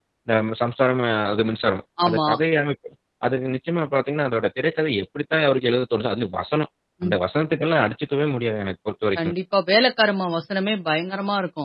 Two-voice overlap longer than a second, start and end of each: none

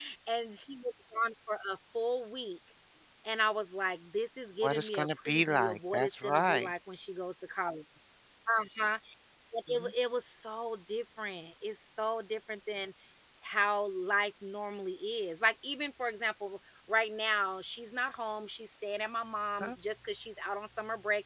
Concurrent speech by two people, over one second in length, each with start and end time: 4.6-6.7

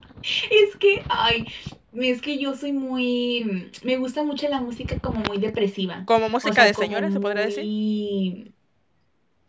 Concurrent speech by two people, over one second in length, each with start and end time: 6.4-7.7

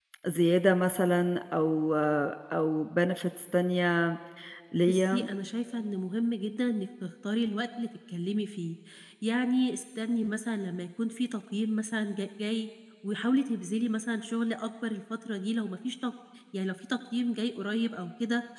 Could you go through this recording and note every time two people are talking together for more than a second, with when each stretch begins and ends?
none

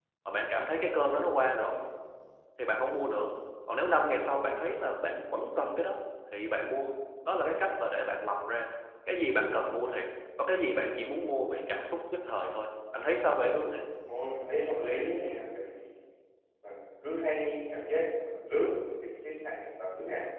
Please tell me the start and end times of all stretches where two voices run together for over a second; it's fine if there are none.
none

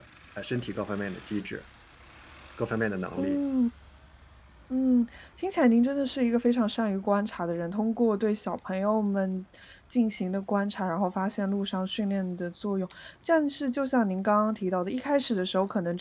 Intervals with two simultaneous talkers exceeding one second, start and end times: none

